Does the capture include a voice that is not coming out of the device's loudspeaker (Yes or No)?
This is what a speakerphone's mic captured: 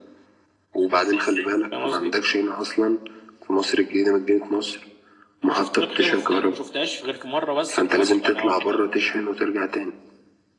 No